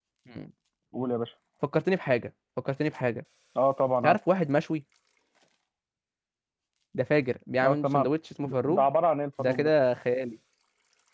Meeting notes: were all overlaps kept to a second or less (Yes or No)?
Yes